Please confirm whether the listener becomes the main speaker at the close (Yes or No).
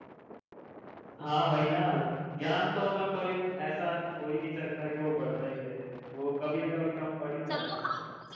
Yes